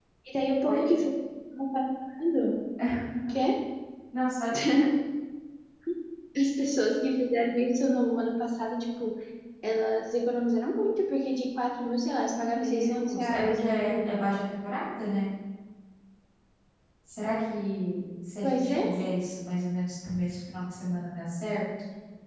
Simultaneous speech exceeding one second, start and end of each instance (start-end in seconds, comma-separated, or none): 12.3-14.2